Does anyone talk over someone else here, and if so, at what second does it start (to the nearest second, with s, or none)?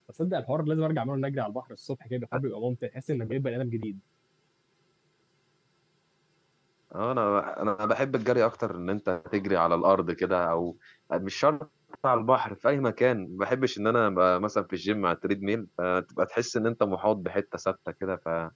none